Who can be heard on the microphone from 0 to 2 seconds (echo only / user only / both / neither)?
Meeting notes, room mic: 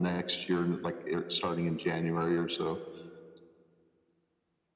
echo only